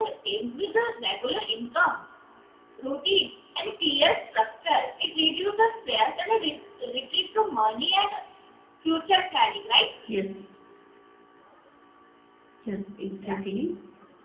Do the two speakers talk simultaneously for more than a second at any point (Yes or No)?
No